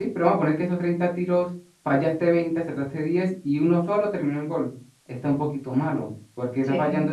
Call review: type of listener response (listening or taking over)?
listening